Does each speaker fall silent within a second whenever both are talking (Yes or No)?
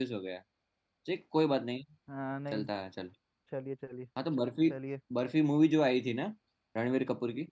Yes